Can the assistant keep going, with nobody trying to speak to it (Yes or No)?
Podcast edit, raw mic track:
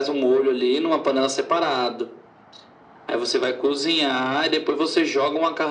Yes